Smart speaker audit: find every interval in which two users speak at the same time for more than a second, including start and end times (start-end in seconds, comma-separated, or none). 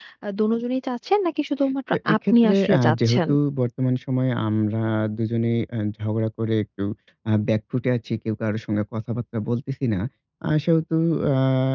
1.9-3.2